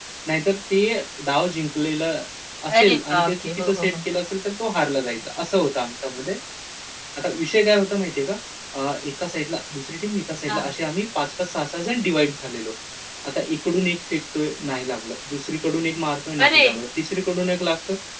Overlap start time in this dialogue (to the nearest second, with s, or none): 3 s